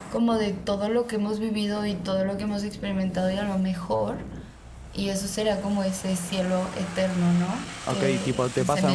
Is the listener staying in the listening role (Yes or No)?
No